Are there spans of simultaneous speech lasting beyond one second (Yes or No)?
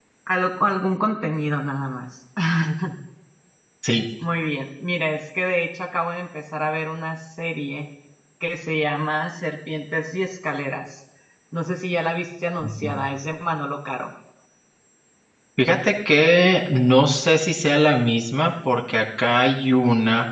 No